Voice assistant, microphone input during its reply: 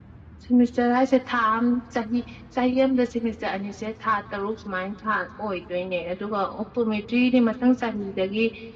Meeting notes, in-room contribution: none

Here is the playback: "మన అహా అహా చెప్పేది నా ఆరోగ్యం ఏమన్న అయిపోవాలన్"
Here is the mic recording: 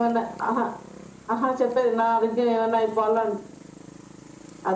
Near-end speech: none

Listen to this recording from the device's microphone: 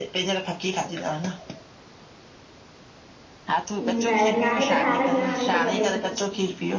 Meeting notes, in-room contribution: present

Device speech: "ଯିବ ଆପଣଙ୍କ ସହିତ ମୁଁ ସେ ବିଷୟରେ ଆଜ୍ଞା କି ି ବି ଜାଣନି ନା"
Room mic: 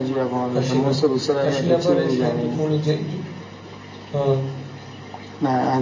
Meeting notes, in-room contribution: present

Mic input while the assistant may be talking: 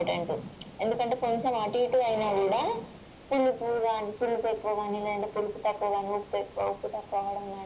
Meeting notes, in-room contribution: none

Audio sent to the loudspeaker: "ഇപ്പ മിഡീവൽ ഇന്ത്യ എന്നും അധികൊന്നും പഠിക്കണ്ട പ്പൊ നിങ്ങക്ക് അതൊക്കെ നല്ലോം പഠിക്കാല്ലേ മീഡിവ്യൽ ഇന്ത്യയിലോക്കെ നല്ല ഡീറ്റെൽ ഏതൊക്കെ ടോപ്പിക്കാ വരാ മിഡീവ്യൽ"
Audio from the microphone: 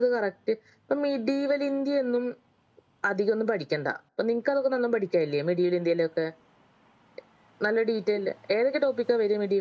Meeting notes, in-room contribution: none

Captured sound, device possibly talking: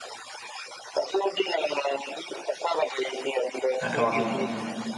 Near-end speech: present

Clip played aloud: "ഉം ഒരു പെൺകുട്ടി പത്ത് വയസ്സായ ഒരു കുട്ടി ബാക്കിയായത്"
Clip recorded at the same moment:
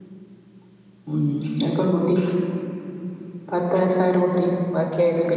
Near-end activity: none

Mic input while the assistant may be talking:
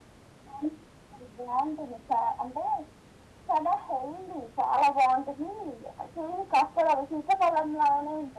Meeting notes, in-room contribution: none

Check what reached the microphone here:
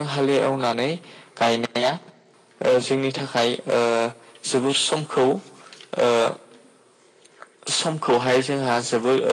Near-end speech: none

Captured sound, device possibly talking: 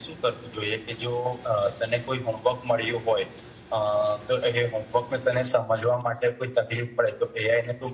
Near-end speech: none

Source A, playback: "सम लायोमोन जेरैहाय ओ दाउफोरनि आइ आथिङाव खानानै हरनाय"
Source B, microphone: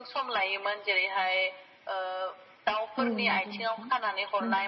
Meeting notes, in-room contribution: present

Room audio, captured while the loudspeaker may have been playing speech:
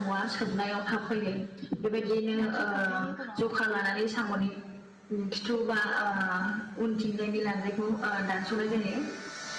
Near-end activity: present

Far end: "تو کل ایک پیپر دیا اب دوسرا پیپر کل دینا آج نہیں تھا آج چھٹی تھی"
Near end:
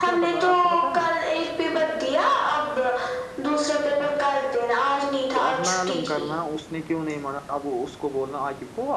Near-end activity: present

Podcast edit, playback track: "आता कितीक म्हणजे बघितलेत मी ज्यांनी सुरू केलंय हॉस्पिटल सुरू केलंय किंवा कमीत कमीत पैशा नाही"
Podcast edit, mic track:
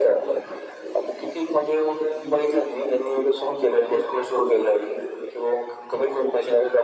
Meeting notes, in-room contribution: none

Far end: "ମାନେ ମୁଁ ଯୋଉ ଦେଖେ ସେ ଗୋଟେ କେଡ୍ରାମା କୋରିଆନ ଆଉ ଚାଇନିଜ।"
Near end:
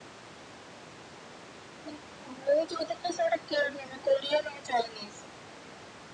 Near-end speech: none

